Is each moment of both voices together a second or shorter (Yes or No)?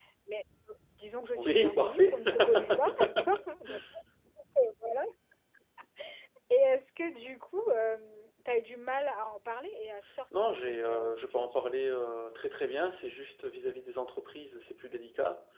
No